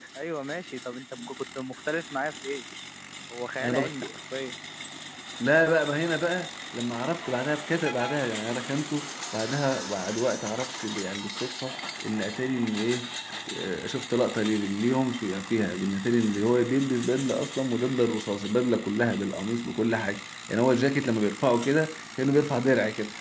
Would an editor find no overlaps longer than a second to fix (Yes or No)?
Yes